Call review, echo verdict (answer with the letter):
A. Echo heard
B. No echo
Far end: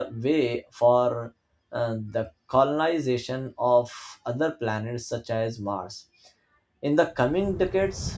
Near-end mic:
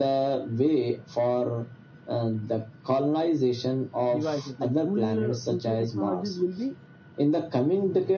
A